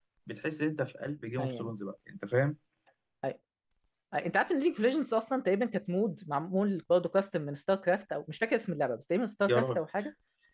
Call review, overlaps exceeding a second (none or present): none